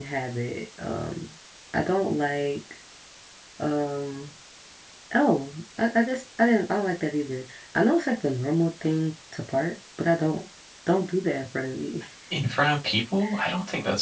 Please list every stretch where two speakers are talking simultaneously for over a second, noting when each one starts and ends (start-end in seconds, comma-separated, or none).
none